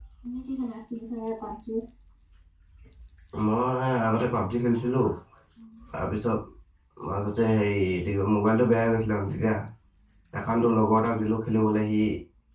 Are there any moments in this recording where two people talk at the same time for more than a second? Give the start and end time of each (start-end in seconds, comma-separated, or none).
none